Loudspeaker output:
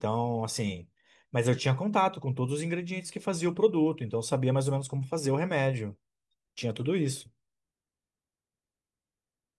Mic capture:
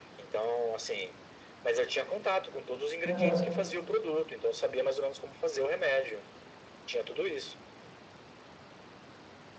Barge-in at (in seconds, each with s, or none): 3.0 s